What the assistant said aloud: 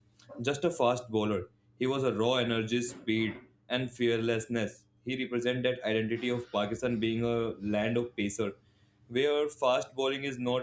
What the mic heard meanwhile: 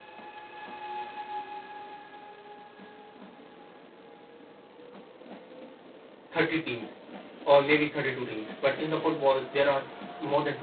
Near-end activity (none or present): present